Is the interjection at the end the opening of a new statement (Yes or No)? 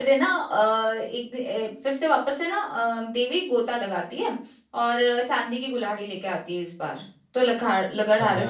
No